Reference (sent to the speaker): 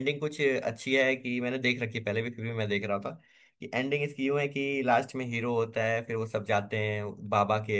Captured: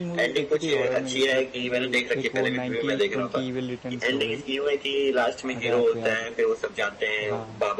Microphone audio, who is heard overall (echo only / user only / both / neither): both